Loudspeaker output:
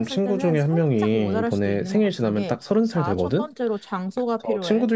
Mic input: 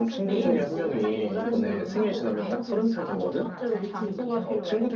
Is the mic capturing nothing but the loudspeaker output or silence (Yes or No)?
No